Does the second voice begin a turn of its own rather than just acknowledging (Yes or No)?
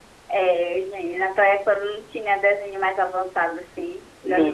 No